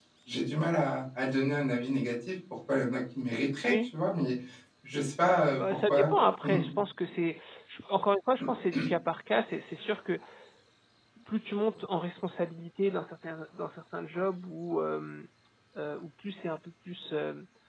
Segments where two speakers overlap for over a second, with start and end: none

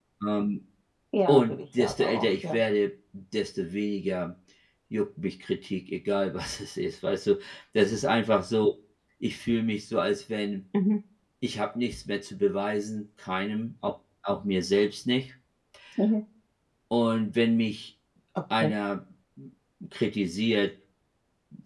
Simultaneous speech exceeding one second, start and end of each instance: 1.3-2.6

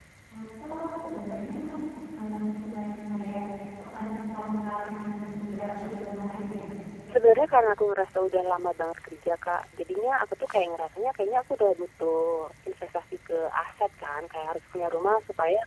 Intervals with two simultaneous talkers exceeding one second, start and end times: none

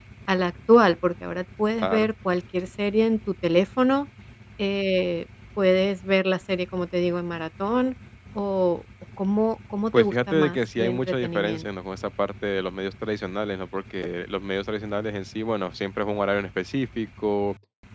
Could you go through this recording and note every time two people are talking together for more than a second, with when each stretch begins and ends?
9.9-11.6

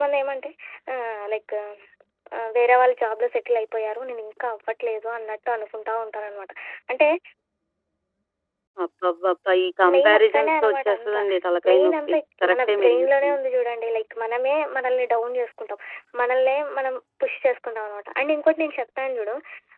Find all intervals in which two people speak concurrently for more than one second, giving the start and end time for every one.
9.9-11.2, 11.7-13.4

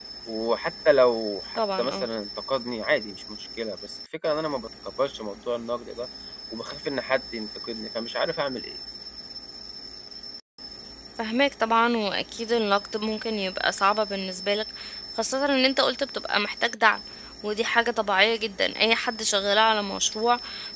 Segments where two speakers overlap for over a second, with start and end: none

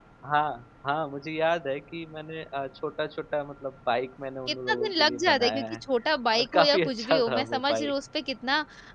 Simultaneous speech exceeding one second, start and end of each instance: 4.5-5.8, 6.4-7.9

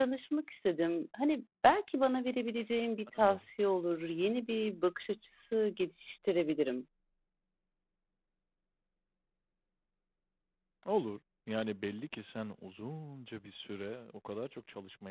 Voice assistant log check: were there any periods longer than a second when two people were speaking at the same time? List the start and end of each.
none

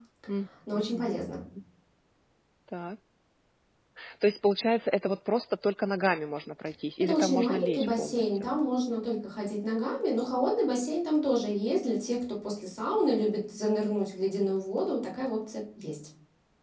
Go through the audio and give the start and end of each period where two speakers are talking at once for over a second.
7.0-8.5

